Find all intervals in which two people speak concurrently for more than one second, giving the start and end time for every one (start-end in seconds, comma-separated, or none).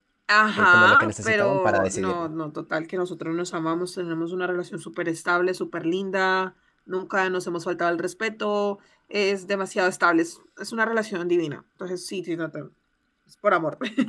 0.6-2.3